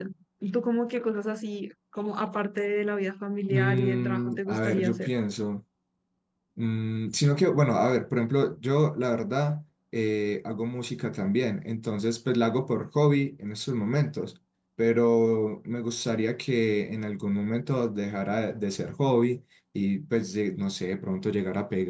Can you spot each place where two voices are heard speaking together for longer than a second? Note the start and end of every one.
3.5-5.1

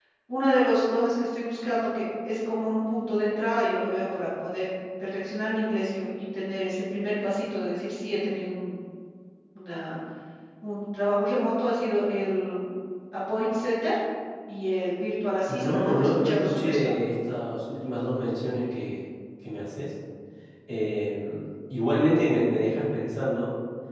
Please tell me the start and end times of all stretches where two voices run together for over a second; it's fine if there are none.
15.5-16.9

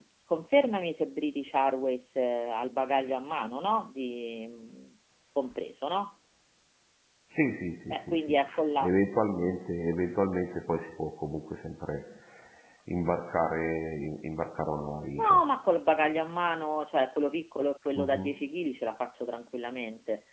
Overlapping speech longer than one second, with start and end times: none

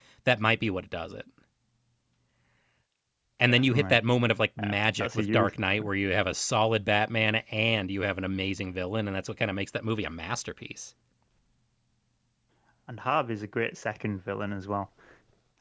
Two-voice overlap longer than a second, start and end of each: 4.6-5.9

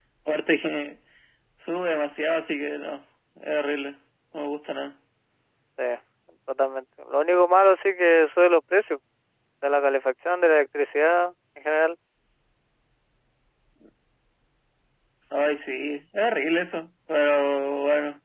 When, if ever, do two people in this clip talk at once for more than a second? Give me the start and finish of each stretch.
none

